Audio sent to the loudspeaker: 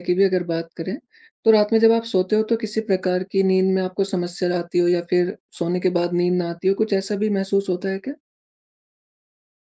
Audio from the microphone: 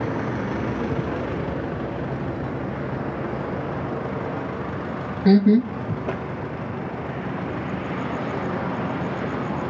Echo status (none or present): none